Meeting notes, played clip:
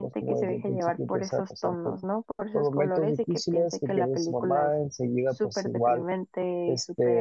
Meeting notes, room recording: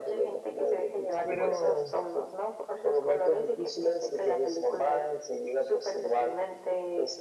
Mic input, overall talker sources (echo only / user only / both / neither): both